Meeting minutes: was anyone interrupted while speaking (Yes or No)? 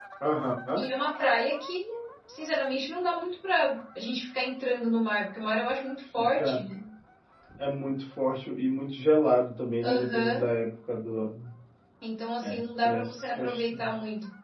Yes